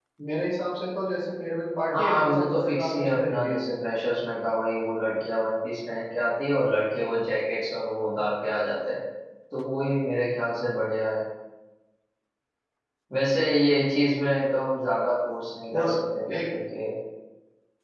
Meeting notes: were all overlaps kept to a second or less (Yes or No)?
No